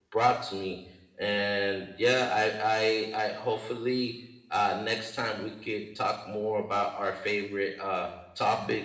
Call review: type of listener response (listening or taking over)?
listening